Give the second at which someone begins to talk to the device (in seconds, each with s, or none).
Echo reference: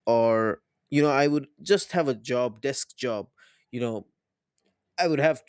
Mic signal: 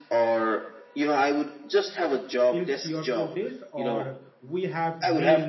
2.5 s